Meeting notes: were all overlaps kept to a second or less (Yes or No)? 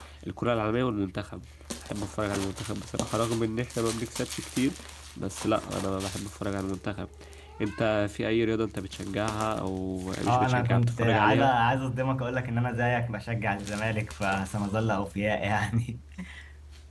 No